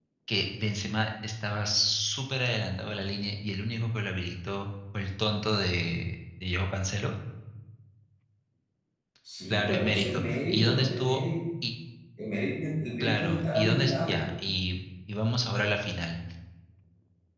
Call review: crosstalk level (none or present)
present